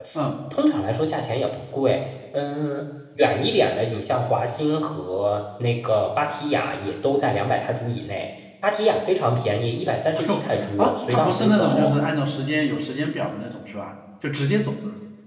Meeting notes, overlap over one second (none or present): present